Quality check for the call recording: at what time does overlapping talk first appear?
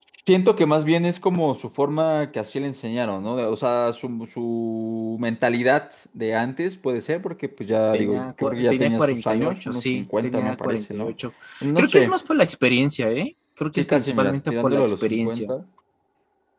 7.9 s

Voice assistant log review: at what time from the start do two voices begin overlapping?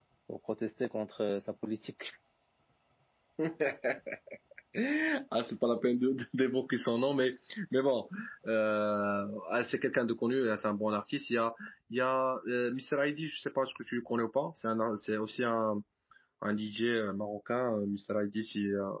none

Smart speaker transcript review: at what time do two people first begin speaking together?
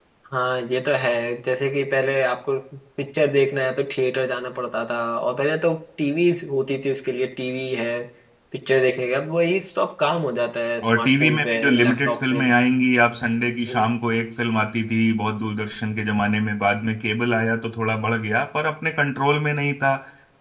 10.8 s

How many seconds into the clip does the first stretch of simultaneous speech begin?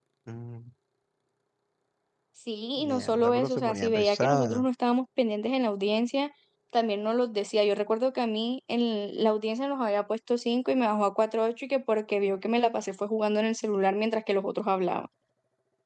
2.8 s

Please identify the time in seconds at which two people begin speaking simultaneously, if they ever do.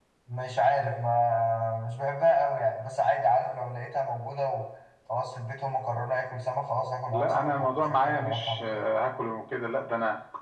7.1 s

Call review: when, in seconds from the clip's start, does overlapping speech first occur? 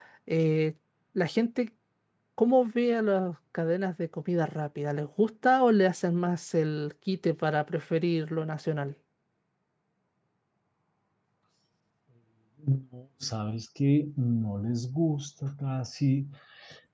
none

